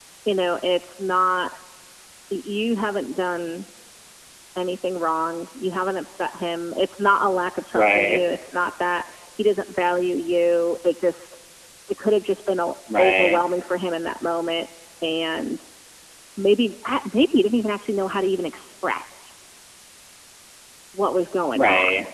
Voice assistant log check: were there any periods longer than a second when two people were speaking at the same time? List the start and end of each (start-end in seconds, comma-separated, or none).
none